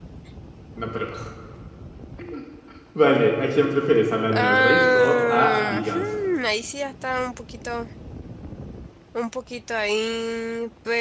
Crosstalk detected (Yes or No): Yes